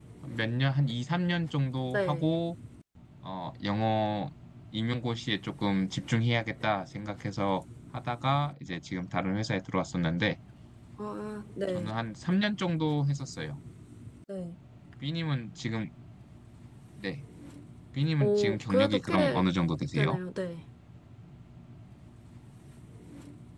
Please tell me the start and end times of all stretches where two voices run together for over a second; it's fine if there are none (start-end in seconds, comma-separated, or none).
18.2-19.4